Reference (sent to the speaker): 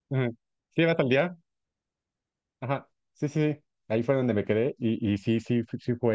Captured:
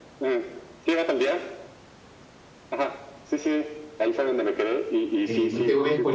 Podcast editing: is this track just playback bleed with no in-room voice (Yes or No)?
No